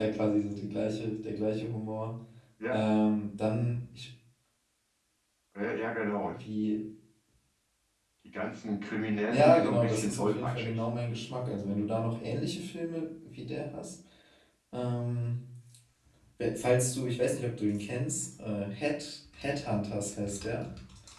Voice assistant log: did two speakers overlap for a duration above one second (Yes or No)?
Yes